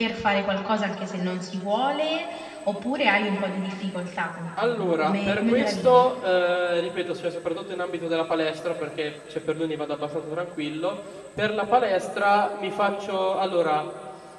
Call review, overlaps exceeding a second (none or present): present